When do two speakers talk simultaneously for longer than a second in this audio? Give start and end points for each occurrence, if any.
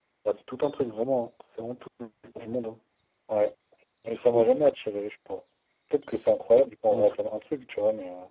none

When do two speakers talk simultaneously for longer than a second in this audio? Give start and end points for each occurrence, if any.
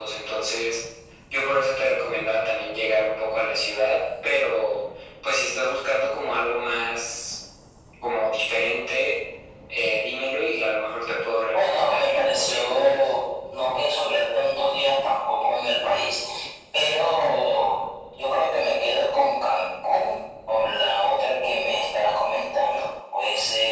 11.5-13.1

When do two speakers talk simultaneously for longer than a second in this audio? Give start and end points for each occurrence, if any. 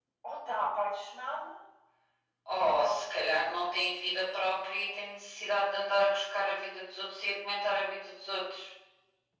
2.6-3.8

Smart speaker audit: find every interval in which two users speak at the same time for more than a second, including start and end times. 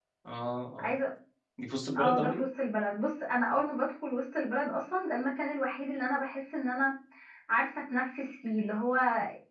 none

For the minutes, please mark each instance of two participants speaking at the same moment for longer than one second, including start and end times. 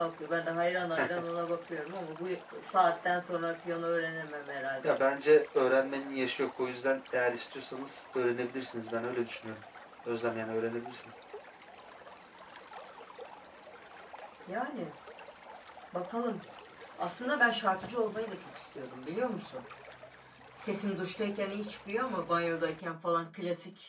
none

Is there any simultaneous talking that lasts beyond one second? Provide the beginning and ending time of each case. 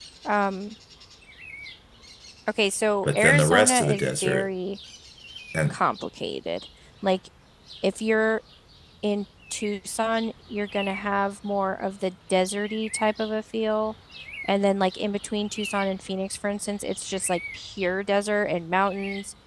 3.0-4.5

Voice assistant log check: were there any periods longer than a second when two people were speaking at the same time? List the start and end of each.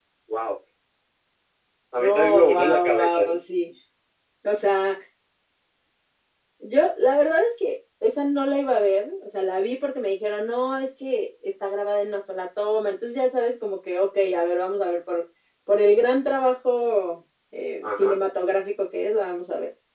2.0-3.4

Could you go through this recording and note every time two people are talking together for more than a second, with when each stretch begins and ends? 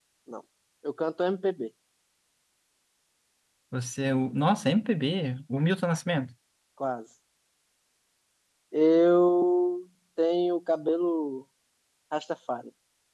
none

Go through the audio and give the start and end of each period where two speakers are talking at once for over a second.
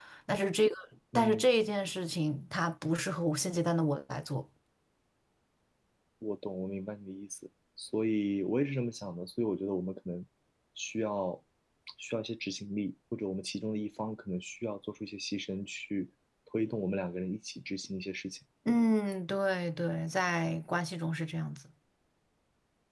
none

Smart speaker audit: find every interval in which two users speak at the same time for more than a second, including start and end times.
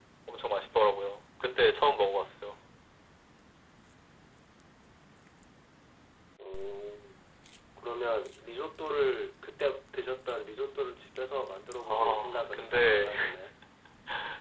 11.9-13.1

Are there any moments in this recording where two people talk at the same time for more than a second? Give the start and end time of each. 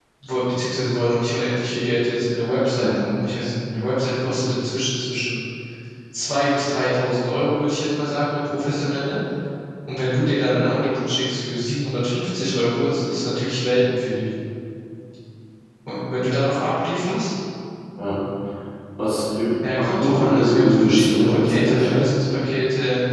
19.6-22.1

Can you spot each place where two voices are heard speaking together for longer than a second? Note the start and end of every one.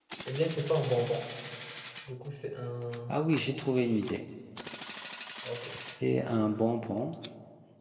none

